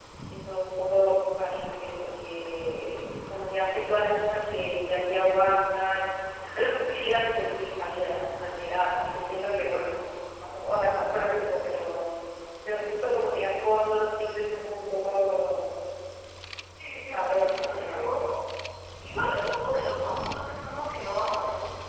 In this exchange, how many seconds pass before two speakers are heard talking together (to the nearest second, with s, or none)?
17 s